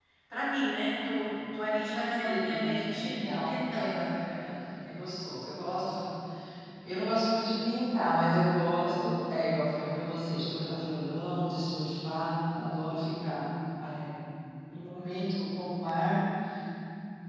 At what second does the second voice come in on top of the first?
2 s

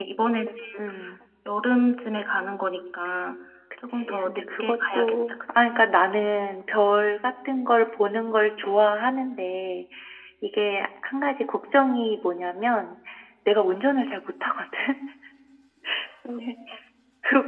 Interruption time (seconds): 4 s

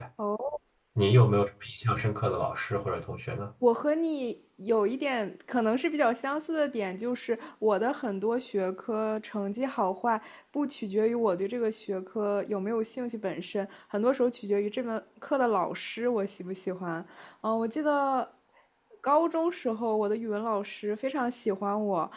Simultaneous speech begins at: none

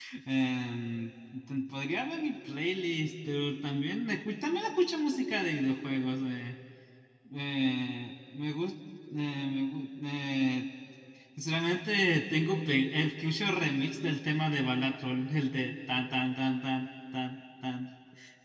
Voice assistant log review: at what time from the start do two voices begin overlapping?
none

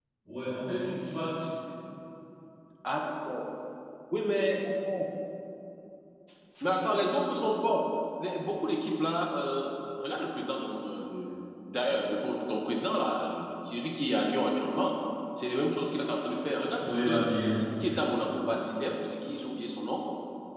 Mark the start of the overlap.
17 s

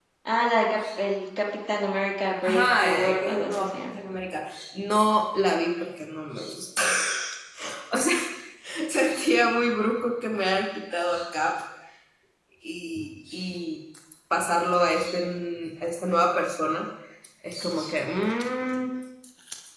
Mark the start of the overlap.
2 s

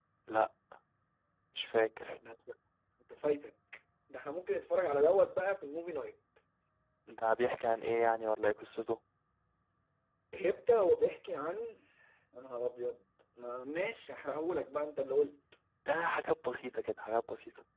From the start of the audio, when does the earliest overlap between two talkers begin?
none

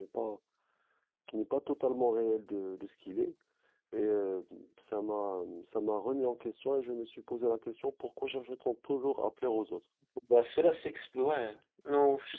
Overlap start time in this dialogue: none

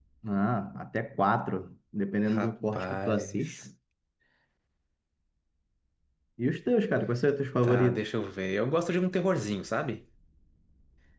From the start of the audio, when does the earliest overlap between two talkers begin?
2 s

